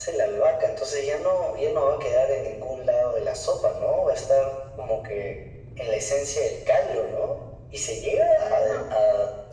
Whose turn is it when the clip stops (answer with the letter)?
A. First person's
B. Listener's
A